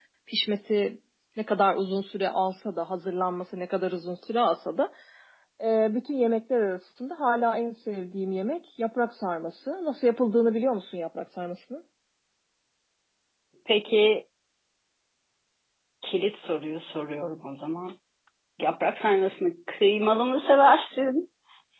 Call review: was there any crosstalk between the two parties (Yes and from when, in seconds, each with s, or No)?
No